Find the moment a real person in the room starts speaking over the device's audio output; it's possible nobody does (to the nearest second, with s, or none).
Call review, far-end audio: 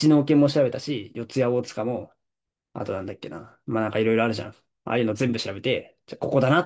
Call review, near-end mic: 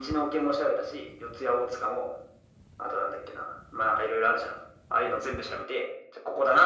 none